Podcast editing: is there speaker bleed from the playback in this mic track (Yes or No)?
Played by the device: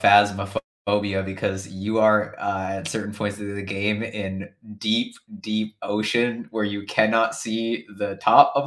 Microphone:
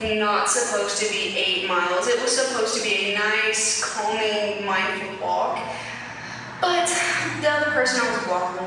No